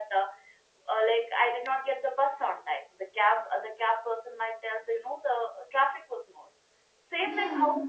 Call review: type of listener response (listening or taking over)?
listening